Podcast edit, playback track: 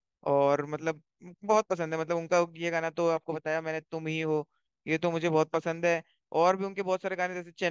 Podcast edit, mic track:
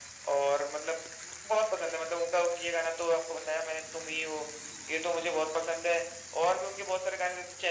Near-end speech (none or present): none